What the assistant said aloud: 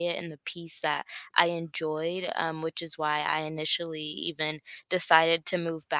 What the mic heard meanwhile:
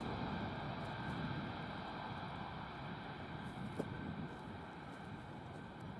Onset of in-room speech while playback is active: none

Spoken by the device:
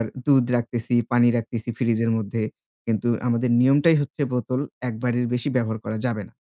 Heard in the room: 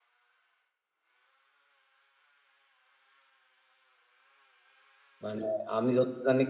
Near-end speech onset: 5 s

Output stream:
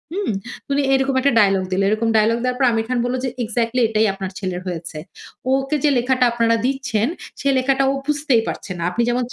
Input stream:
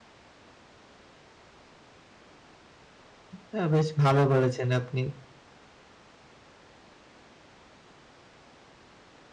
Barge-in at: 3 s

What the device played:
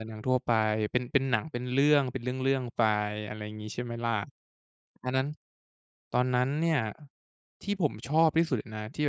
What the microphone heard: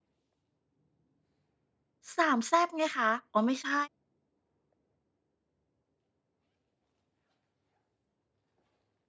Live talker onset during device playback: 2 s

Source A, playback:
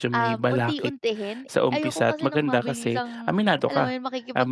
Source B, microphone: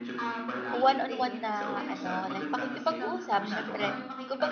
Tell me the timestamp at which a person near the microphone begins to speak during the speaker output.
1 s

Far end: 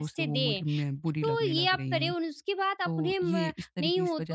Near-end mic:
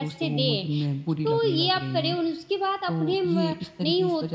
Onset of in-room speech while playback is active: none

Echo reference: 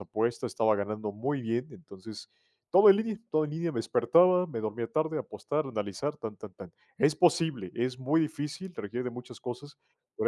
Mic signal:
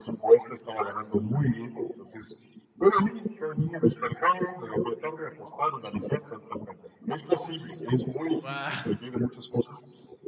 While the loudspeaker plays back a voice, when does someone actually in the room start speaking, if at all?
8 s

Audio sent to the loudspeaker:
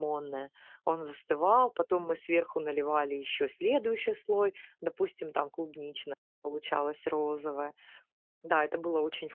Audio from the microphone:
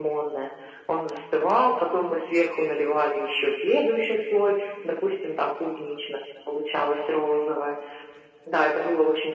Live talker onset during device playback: none

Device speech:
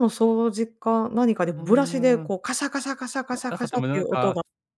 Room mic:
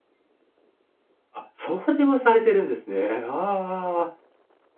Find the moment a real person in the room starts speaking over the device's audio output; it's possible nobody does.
1 s

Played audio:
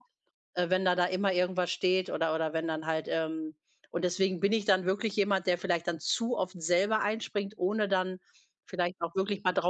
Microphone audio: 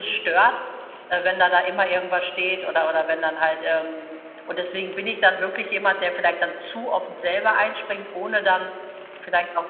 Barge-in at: none

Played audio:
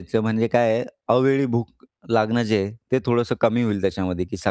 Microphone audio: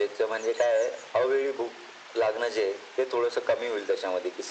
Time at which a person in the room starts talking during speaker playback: none

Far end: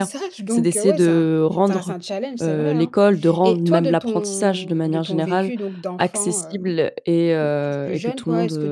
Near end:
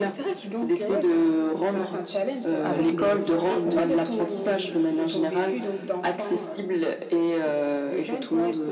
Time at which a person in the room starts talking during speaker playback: 3 s

